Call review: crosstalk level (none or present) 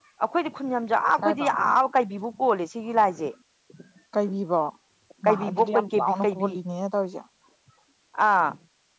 present